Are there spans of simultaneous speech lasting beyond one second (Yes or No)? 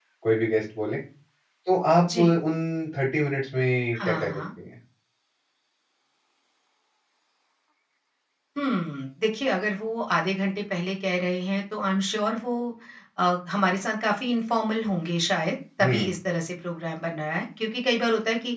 No